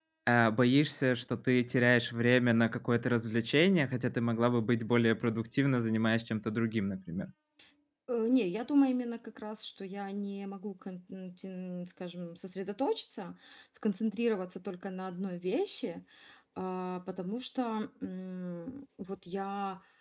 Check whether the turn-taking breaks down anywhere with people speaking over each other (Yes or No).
No